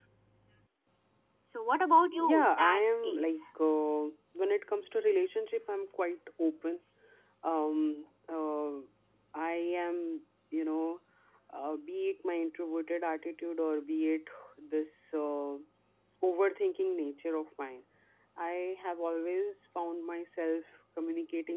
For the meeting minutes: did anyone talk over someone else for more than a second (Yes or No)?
Yes